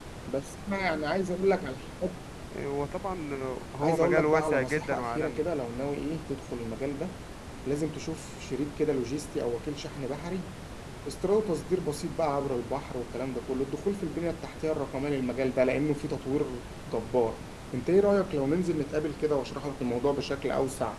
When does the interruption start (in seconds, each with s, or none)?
3.8 s